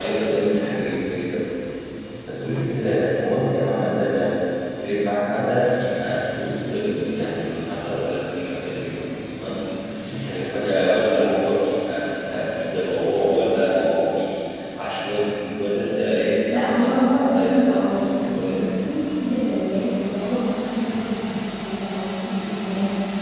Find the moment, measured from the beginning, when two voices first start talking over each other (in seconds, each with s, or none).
16.5 s